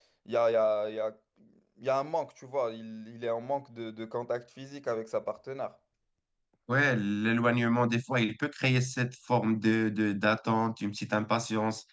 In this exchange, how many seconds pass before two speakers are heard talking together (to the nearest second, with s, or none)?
none